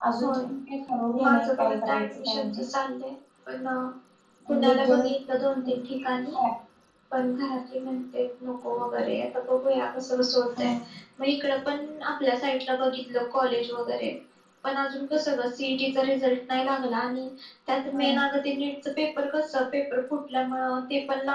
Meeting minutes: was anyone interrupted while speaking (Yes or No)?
Yes